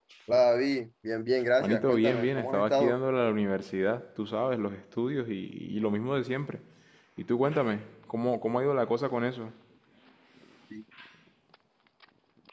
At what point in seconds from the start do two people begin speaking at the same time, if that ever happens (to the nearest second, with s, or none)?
2 s